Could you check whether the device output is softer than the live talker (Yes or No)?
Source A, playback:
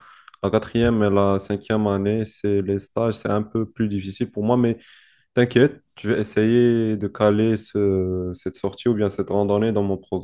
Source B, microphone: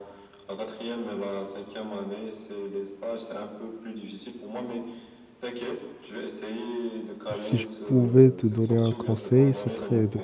Yes